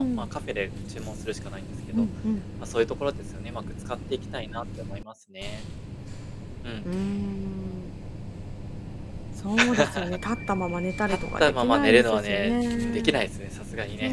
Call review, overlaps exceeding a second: present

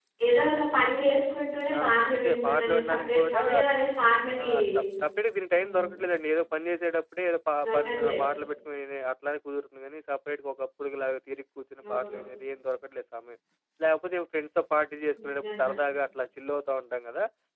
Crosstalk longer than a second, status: present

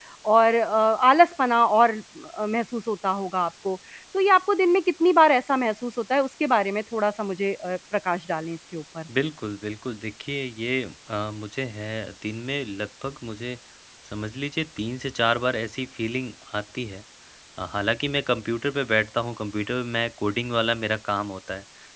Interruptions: none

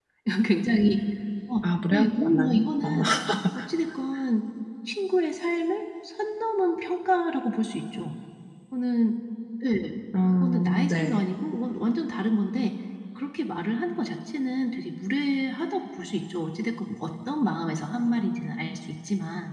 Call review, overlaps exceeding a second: present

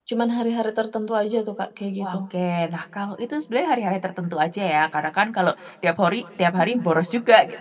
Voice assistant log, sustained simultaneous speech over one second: none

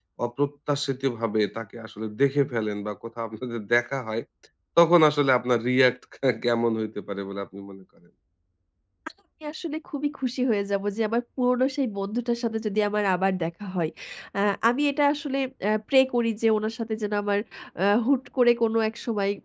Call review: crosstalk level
none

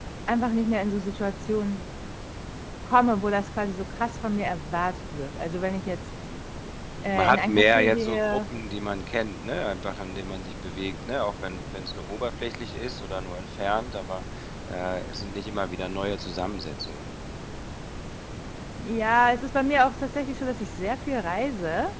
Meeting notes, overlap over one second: present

